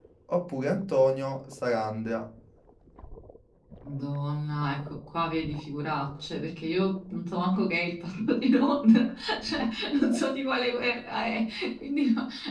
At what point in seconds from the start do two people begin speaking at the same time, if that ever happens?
none

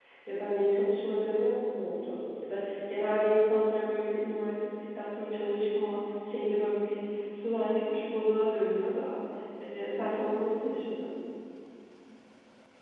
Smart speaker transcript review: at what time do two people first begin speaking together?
none

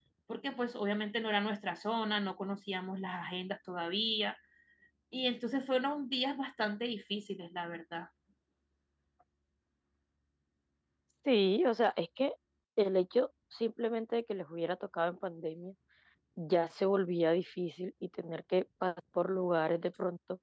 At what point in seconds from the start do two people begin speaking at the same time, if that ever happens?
none

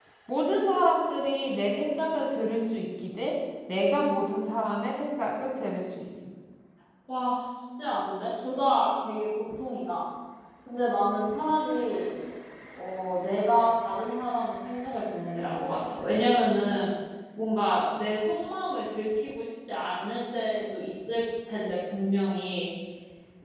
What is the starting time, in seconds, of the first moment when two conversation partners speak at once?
none

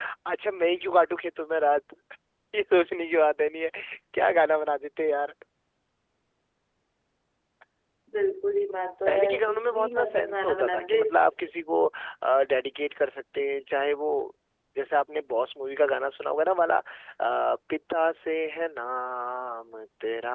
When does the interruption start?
9.1 s

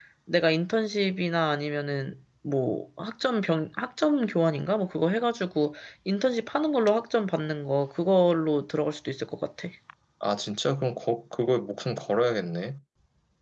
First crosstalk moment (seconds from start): none

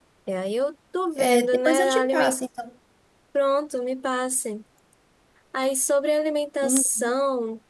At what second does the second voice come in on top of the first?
1.2 s

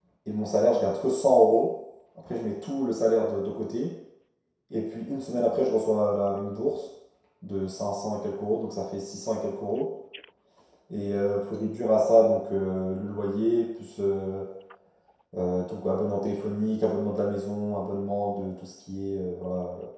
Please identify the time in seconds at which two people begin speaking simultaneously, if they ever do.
none

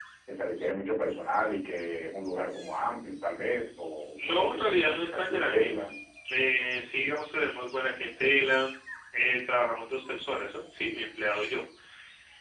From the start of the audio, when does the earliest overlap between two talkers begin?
4.2 s

